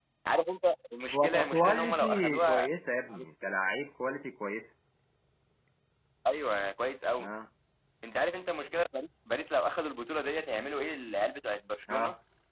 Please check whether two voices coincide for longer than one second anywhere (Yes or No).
Yes